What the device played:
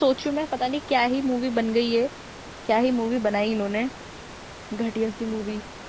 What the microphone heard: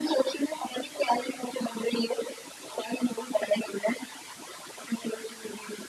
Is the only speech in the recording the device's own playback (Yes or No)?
Yes